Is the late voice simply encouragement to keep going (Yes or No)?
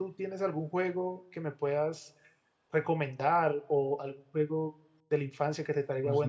No